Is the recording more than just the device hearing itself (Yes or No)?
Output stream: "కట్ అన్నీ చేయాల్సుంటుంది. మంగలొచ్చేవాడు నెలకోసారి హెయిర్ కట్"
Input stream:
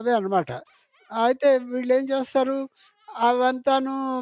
Yes